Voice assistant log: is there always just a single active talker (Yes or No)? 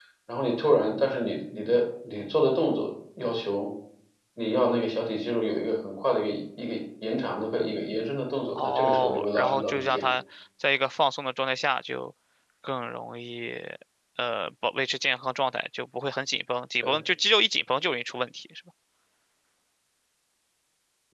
No